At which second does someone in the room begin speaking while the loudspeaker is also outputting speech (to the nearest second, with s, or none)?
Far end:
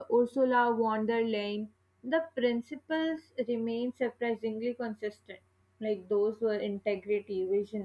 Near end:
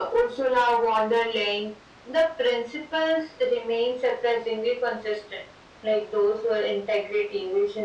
none